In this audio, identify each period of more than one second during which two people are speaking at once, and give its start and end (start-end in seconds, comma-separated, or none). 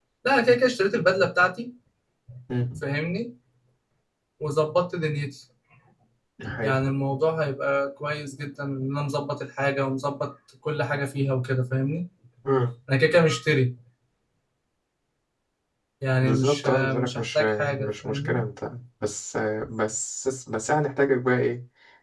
16.2-18.4